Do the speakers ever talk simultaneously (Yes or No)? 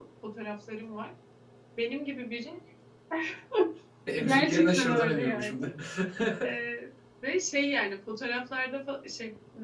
Yes